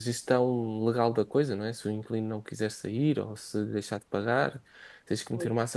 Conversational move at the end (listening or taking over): listening